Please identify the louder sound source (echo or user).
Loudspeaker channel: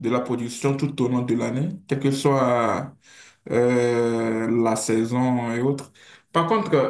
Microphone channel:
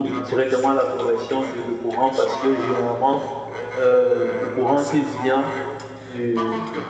user